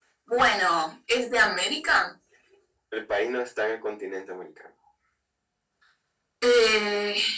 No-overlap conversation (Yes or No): Yes